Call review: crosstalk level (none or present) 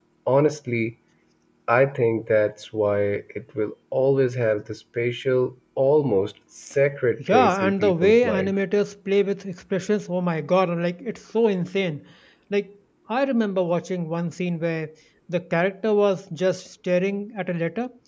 present